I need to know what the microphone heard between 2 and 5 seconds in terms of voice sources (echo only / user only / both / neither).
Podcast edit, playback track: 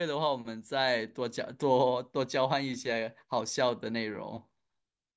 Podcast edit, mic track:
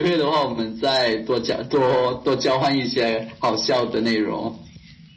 echo only